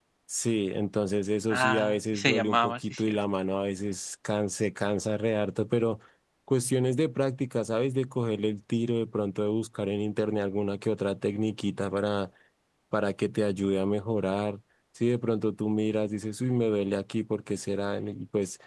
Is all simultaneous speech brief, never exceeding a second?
No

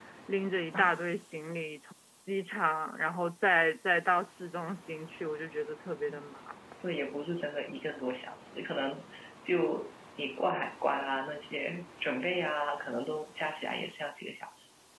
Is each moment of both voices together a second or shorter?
Yes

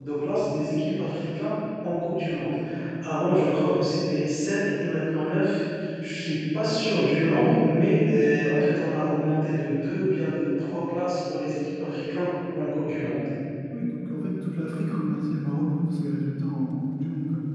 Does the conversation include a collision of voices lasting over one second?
No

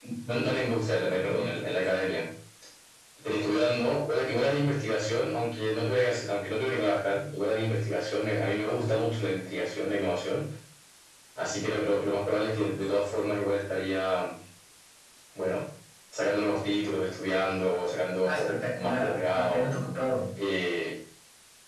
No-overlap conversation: No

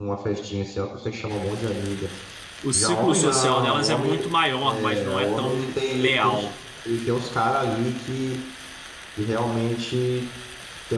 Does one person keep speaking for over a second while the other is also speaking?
Yes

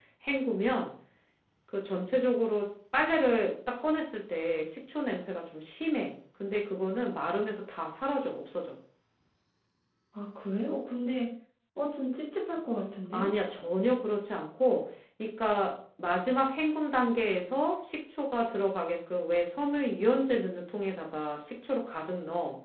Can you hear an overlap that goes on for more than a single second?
No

